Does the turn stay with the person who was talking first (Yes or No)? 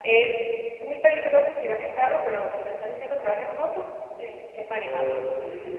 No